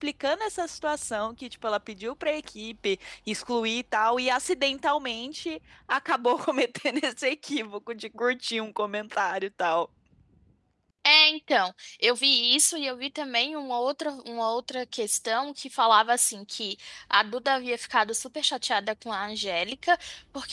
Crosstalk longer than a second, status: none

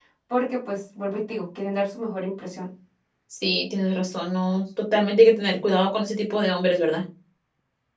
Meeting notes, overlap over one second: none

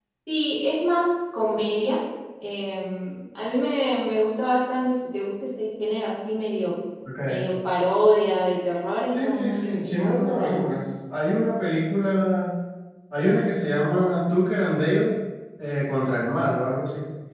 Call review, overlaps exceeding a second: present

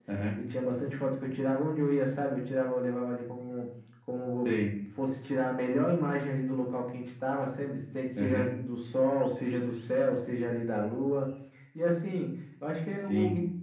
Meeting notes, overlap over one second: none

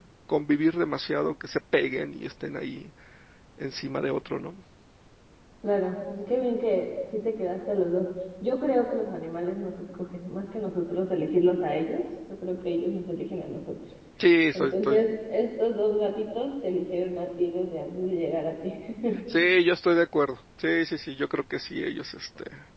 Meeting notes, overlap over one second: none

